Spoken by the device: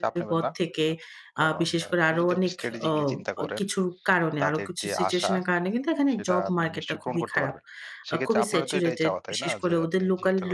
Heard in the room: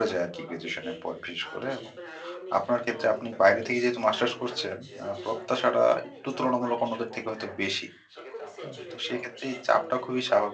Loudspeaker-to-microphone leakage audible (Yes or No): Yes